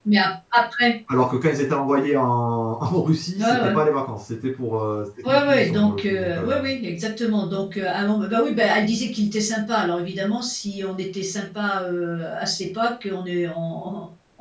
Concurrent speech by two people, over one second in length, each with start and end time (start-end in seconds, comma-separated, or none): 5.3-6.6